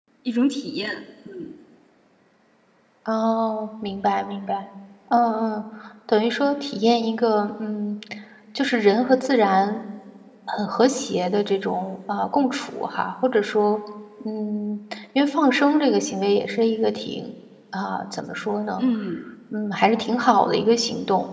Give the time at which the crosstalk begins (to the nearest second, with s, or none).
none